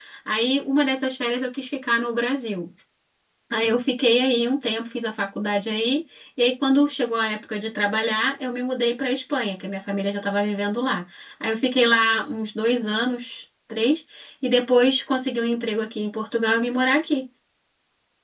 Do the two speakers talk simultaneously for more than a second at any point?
No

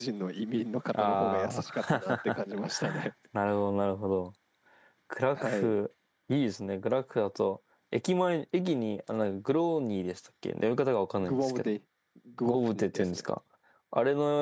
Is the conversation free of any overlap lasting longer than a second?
No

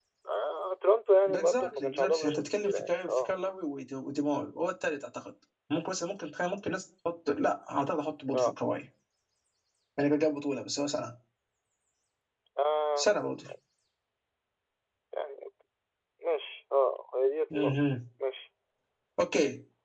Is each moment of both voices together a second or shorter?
No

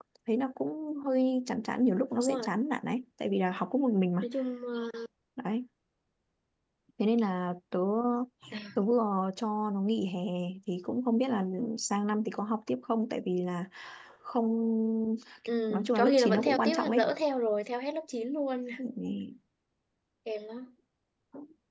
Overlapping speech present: Yes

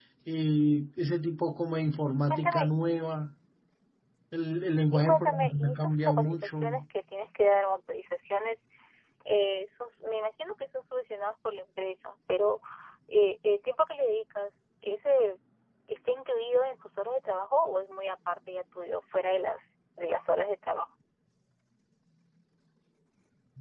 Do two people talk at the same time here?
Yes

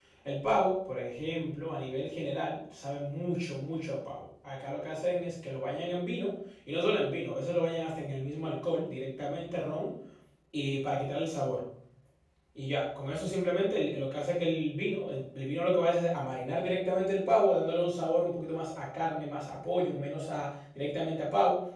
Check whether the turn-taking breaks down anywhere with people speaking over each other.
No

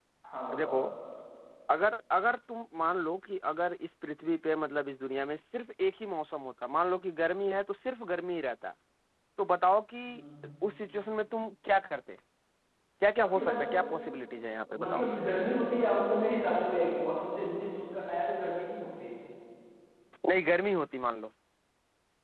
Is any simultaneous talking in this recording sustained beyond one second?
No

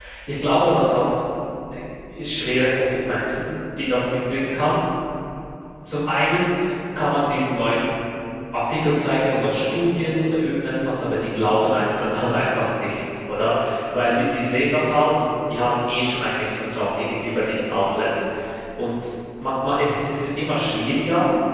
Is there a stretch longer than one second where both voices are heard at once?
No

